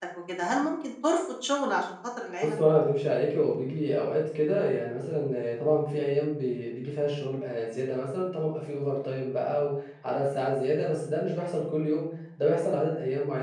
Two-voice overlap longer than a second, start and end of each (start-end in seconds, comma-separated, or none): none